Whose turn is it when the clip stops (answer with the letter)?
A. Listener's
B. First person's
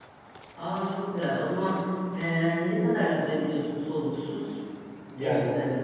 A